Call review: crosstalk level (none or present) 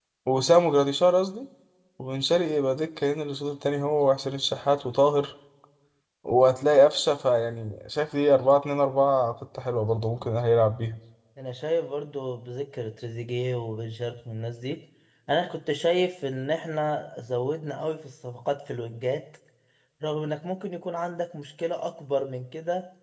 none